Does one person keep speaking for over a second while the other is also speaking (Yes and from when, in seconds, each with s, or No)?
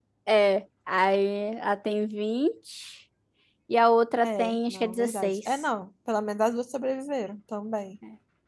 Yes, from 4.2 s